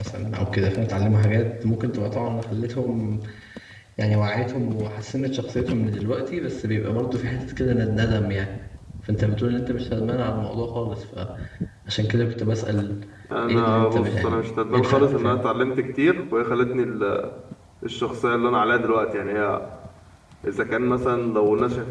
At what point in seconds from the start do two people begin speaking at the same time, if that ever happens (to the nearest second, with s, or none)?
13 s